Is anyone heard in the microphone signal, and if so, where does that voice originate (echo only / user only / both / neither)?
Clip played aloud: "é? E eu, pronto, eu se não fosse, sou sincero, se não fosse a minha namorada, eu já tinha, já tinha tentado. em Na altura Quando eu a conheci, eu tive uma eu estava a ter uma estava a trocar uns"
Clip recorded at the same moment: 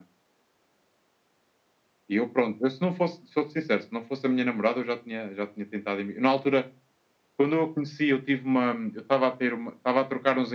echo only